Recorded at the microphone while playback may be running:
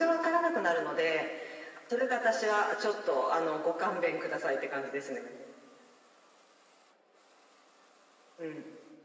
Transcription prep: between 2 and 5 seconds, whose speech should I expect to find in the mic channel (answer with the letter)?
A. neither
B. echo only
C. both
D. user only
B